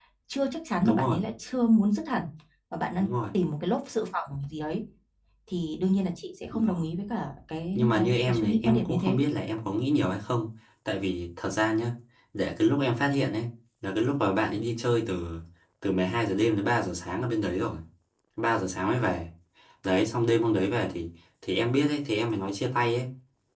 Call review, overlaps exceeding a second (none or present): present